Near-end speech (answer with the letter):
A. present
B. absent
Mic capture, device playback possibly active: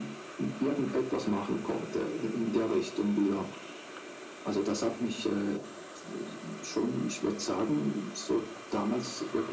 B